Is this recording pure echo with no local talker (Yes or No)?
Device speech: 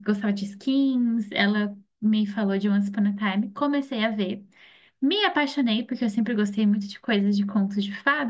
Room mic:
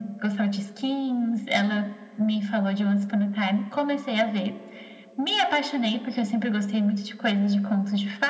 Yes